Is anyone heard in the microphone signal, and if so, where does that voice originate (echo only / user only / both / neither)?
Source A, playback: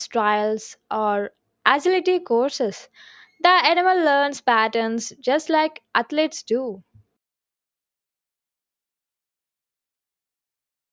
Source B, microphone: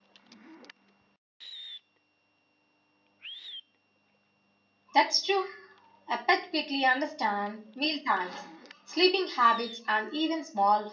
user only